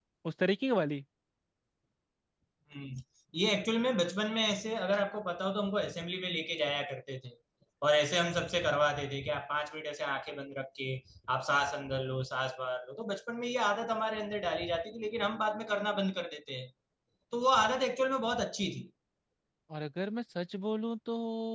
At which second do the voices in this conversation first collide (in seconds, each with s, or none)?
none